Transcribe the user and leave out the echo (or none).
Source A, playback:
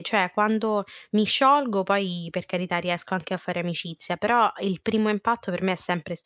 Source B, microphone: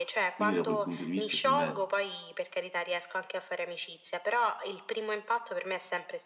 Quindi da quel punto di vista, secondo me,